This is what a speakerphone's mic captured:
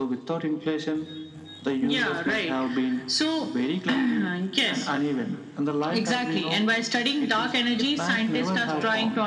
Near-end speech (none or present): present